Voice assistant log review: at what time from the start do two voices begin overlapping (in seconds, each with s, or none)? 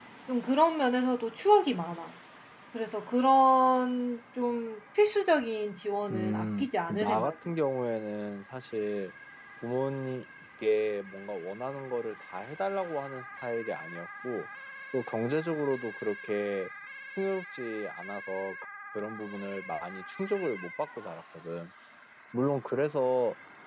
6.1 s